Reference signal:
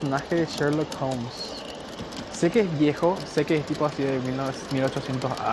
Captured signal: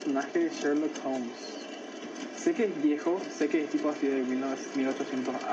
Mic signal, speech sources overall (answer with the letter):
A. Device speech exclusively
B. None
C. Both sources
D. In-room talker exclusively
A